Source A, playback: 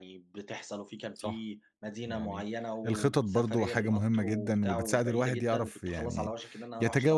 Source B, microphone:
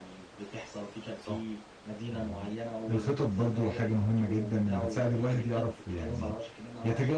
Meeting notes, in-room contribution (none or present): none